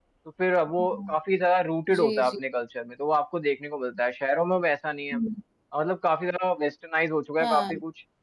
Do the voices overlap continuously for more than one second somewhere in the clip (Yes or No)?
No